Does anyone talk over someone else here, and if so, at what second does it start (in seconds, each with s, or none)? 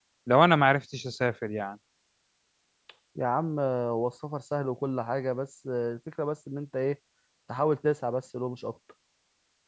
none